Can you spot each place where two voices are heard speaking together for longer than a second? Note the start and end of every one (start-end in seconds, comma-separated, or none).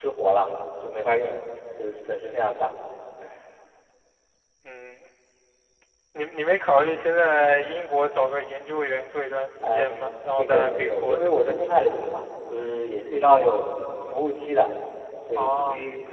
9.6-11.6